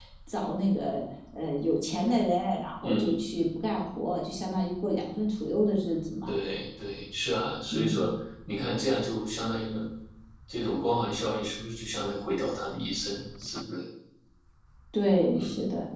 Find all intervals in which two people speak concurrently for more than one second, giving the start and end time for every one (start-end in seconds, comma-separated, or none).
none